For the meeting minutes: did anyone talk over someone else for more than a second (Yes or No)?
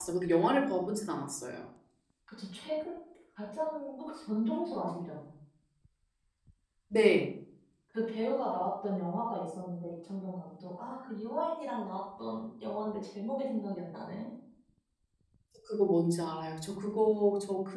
No